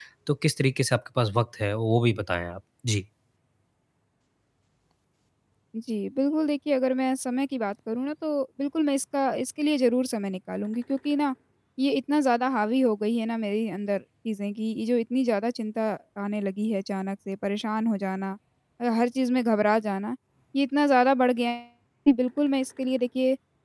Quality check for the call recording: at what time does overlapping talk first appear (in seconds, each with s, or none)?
none